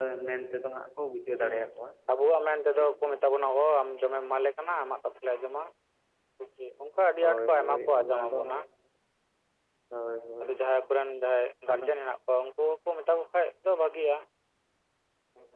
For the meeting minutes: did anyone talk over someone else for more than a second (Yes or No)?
Yes